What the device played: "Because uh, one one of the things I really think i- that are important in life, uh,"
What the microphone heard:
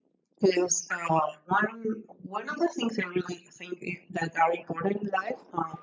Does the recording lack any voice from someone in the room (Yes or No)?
Yes